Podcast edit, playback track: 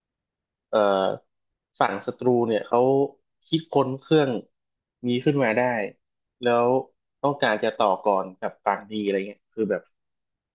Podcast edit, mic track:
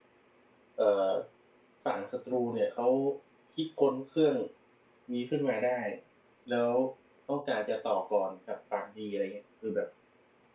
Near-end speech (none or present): none